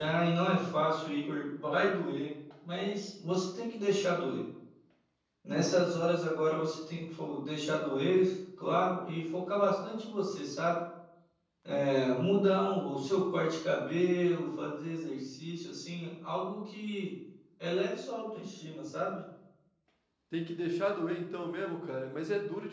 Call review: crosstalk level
none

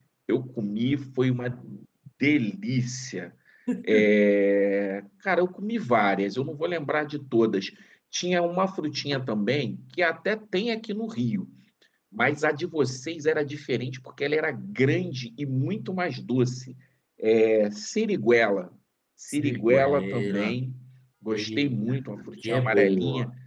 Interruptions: present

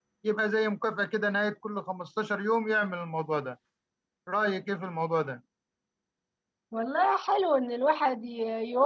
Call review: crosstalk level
none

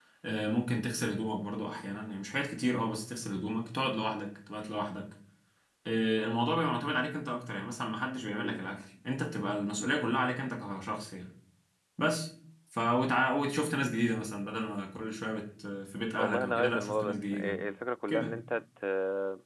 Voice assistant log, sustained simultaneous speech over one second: present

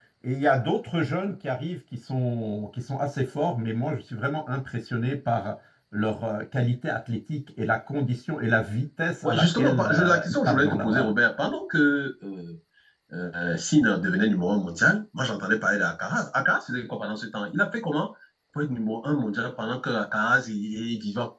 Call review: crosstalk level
present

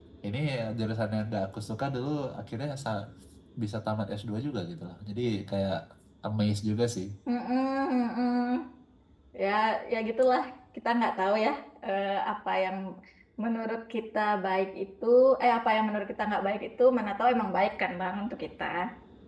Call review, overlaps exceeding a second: none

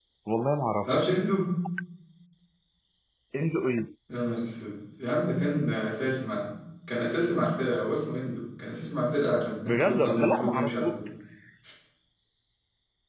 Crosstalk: present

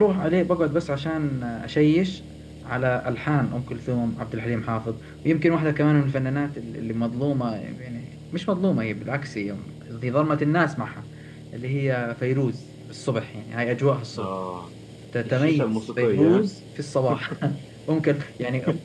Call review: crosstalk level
present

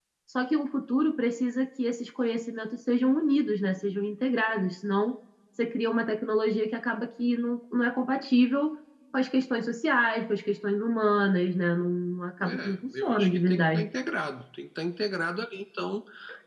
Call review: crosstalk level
present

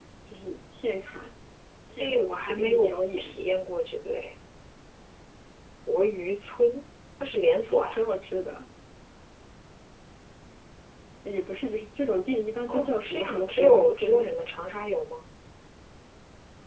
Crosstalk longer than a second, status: present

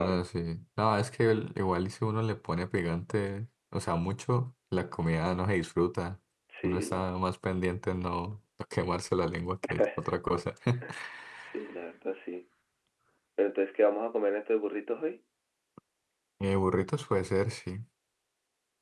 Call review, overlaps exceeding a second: none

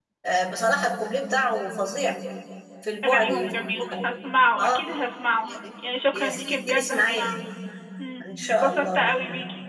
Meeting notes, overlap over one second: present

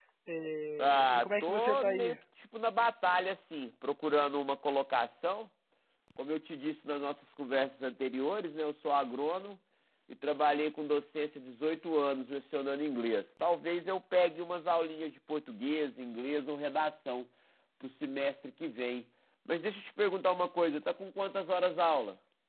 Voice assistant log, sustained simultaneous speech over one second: present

